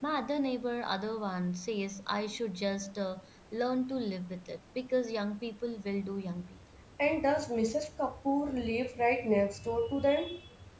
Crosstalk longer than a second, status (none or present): none